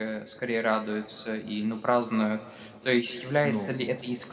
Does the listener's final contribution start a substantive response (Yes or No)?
No